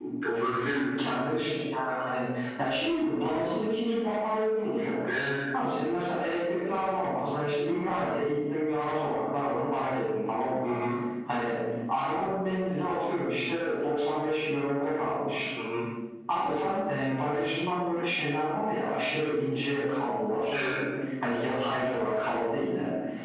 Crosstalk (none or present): none